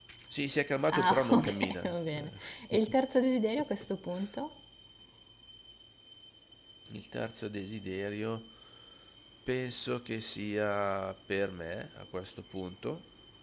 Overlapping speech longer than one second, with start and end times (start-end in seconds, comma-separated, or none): 0.9-2.3